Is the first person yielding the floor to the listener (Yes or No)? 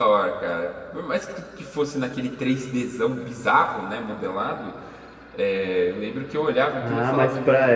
Yes